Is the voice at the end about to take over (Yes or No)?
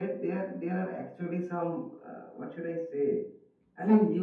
No